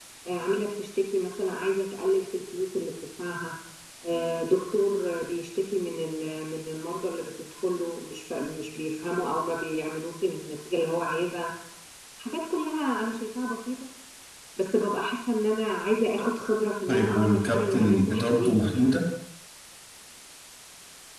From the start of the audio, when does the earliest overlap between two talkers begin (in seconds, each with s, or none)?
16.9 s